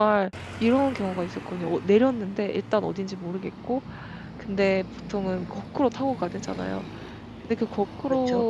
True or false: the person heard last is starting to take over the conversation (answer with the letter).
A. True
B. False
B